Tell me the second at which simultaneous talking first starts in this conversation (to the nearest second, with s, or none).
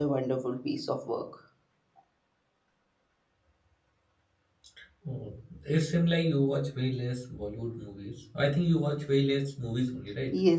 none